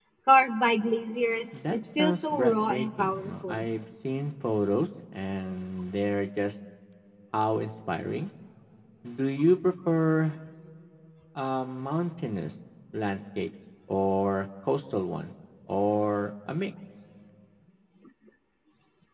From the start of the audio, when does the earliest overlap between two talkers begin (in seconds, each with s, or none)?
1.5 s